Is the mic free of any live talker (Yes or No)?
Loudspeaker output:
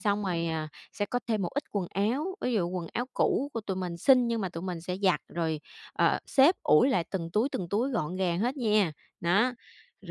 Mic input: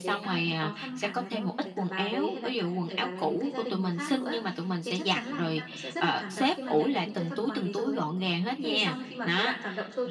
No